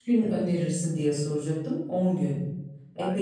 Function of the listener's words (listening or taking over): taking over